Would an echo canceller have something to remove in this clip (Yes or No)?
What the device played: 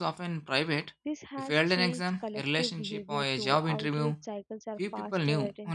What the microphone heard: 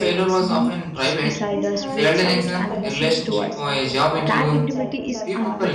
Yes